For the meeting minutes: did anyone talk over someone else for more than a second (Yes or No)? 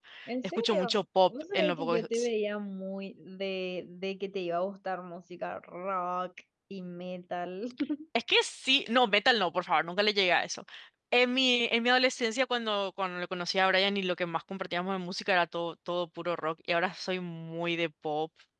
Yes